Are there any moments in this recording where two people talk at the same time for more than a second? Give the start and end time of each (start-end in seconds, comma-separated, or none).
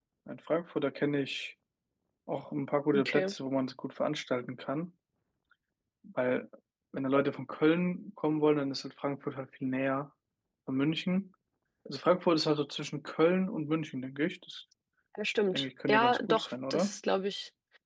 15.5-16.9